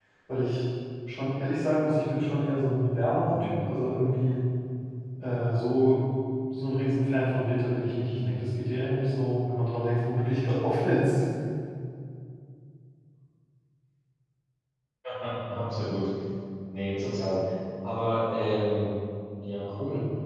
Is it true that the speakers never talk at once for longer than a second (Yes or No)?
Yes